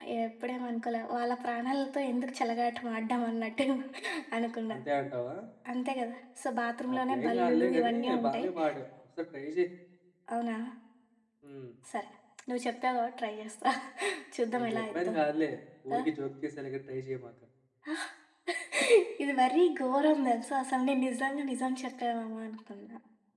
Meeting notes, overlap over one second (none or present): present